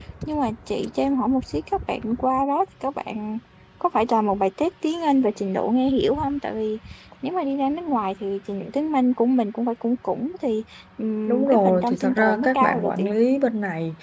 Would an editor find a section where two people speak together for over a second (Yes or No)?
Yes